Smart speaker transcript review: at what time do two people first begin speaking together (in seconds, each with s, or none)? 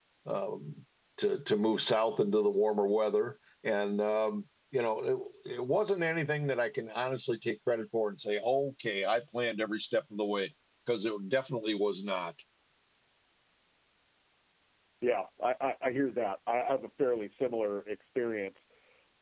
none